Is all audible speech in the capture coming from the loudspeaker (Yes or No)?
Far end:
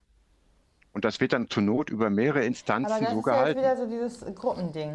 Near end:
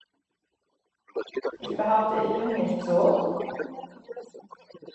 No